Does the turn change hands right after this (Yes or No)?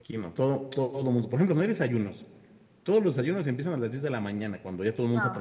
No